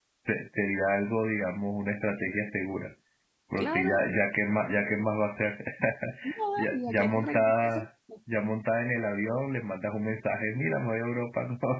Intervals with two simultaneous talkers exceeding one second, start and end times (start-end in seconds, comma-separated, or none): 6.6-7.8